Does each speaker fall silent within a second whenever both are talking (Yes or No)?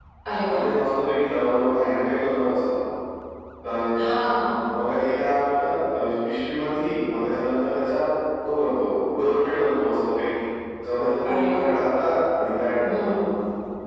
Yes